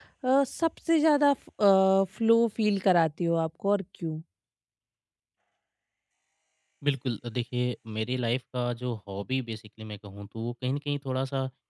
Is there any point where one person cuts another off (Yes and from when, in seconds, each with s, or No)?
No